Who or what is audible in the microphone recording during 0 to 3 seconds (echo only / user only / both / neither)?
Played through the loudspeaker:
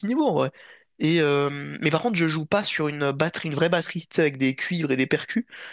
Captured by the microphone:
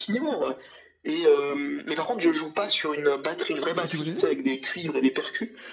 echo only